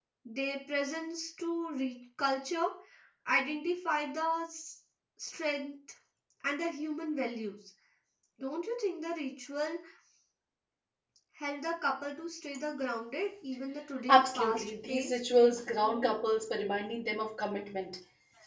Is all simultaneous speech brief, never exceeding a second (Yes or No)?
No